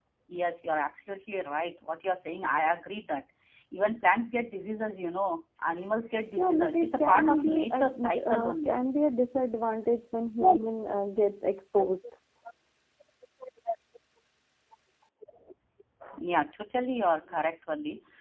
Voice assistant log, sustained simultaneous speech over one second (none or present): present